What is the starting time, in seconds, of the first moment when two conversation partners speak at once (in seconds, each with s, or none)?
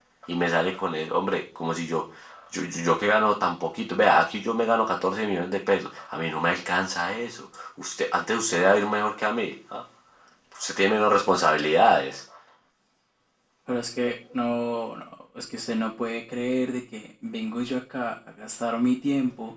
none